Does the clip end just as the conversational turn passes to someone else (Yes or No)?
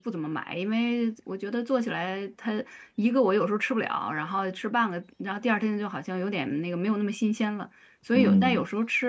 No